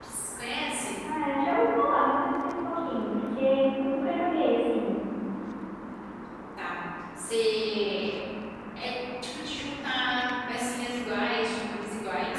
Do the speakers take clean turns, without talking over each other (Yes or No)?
Yes